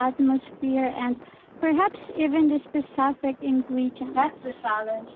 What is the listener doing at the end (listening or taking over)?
taking over